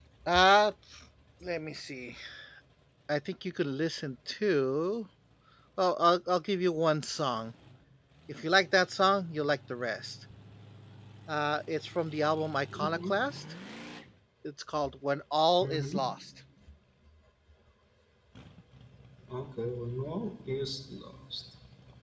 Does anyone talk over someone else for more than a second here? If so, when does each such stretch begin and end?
none

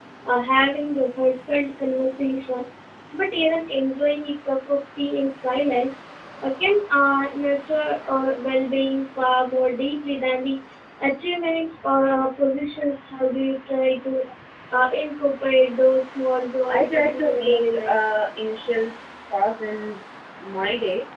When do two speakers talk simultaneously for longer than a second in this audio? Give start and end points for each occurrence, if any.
16.7-18.0

